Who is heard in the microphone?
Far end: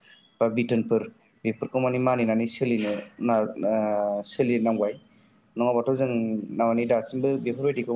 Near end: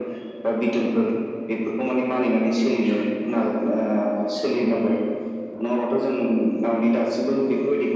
echo only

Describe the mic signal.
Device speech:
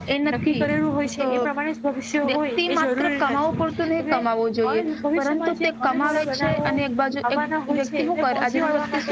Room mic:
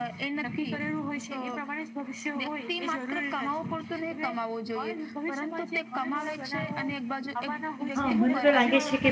both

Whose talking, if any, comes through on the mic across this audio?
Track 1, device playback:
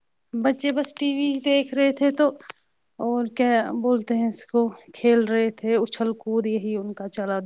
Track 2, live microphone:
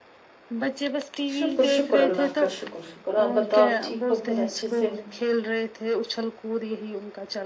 both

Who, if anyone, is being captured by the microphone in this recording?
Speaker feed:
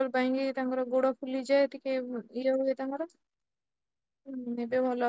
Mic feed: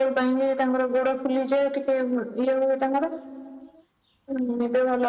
echo only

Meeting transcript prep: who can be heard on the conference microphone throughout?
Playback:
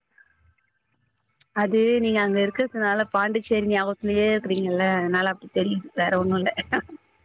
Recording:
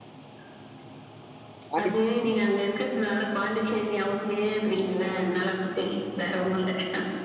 both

